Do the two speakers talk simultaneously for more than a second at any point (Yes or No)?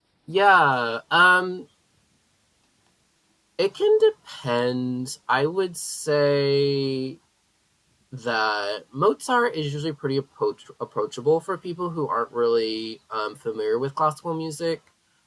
No